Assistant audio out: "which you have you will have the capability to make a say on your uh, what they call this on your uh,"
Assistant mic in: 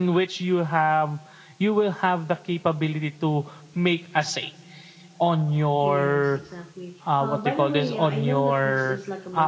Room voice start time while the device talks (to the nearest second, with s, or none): 6 s